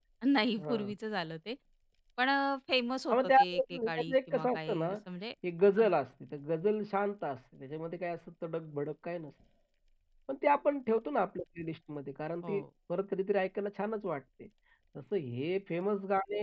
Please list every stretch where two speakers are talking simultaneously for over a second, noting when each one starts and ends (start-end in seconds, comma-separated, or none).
3.1-5.0